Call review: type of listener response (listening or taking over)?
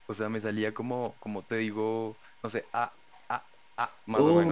taking over